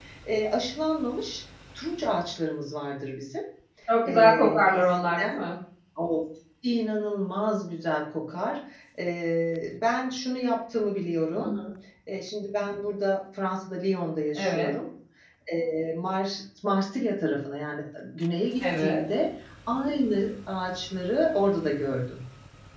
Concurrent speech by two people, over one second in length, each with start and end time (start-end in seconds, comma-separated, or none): 4.0-5.3